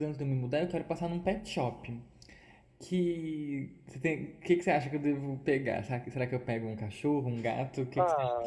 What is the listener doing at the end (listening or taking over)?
taking over